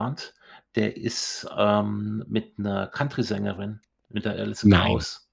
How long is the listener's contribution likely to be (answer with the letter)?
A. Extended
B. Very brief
B